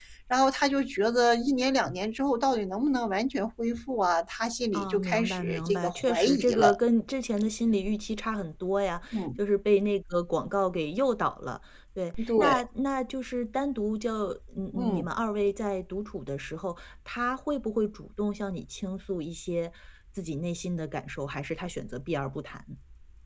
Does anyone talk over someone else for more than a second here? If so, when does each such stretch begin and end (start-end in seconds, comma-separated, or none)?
4.7-6.8